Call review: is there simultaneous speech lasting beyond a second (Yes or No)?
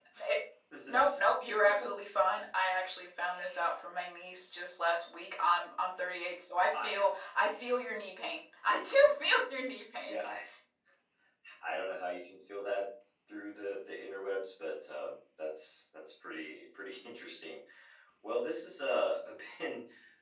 No